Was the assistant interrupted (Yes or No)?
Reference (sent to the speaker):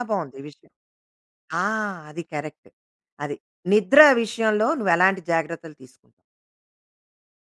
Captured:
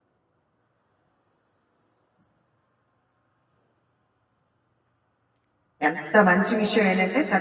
Yes